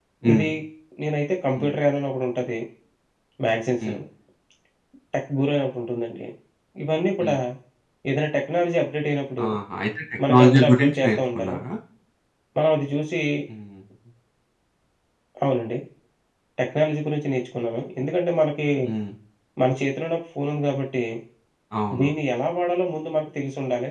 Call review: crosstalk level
present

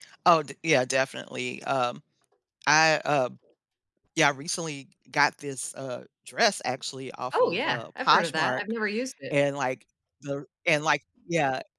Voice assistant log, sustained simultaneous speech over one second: present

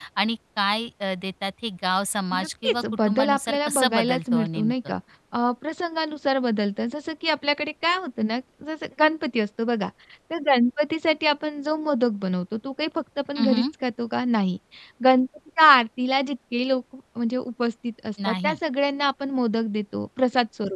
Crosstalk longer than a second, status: present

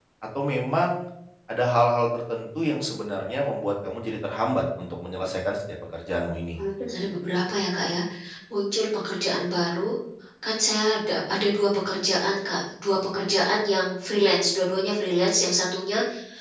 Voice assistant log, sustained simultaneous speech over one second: none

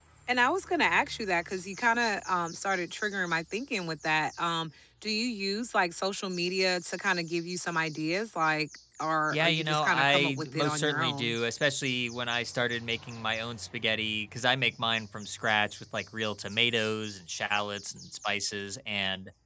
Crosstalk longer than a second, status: present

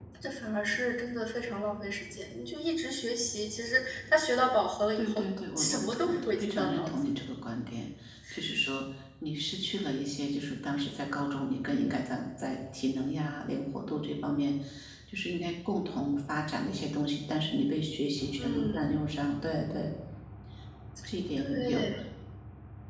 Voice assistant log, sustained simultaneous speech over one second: present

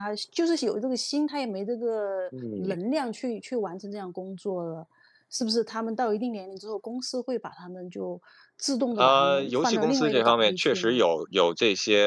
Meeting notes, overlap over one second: present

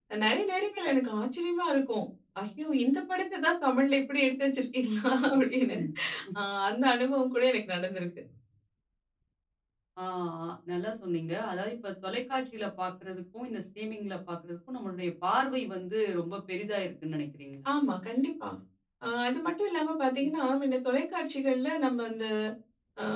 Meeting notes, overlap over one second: none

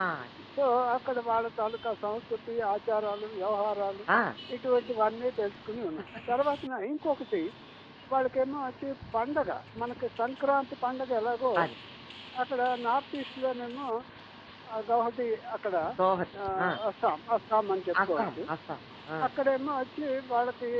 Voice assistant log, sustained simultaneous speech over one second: none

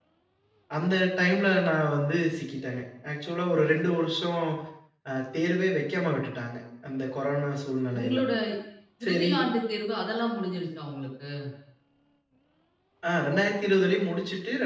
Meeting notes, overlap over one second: none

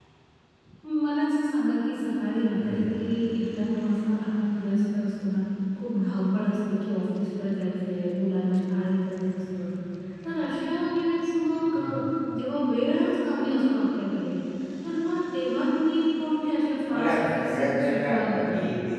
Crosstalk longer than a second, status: present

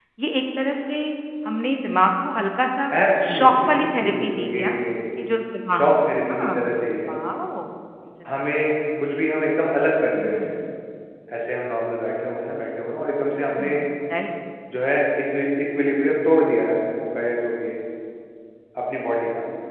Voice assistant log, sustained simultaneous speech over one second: present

